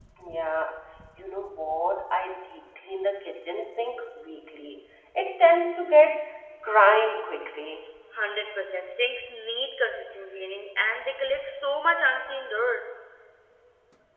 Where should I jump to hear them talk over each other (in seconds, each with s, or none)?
none